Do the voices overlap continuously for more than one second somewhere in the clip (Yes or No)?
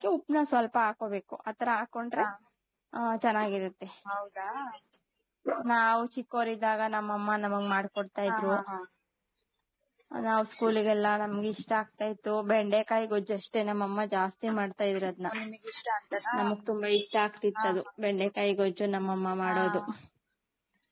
No